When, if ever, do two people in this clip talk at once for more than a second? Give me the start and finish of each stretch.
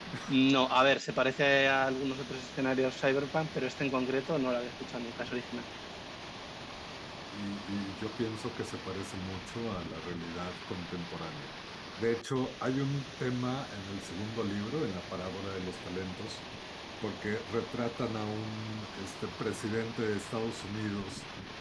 none

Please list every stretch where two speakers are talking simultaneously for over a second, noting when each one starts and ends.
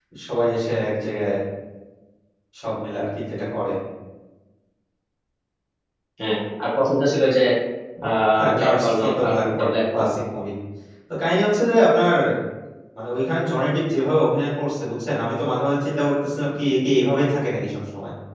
8.6-10.1

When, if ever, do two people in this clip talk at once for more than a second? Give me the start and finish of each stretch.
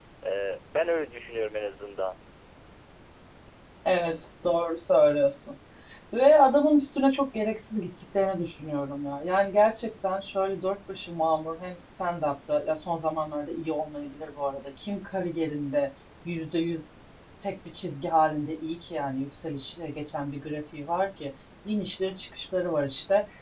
none

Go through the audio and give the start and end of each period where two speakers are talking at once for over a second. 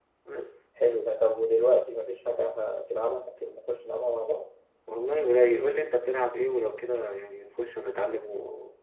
none

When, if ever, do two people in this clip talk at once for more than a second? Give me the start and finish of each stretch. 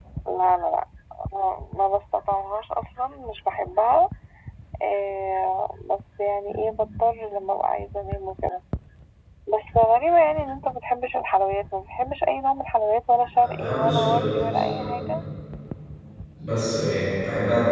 13.3-14.9

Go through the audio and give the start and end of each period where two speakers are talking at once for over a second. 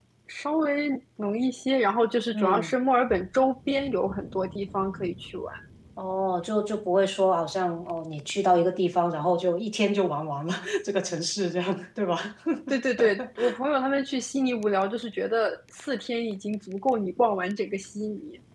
none

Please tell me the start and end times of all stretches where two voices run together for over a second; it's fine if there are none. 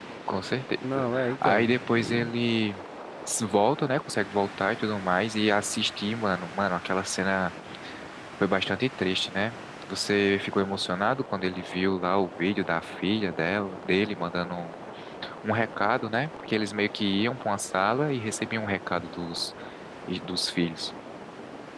0.9-2.3

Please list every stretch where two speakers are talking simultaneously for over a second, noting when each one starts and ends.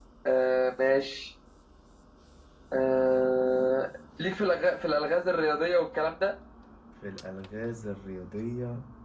none

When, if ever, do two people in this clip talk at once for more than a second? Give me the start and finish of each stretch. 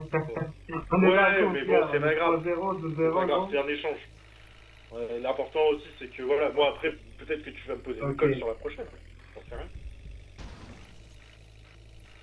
1.0-2.4

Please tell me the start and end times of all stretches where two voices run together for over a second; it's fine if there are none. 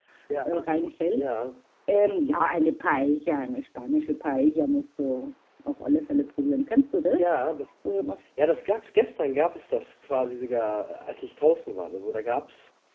none

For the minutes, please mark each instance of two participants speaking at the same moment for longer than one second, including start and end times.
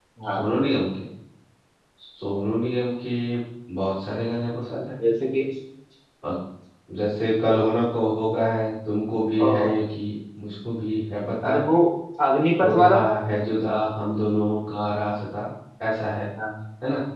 none

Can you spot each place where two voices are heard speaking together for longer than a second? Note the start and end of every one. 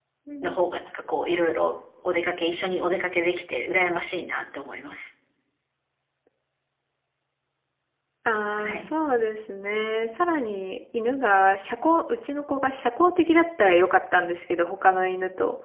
none

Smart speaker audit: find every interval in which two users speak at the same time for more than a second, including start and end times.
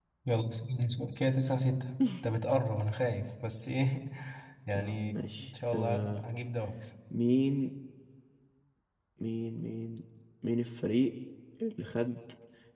4.8-6.2

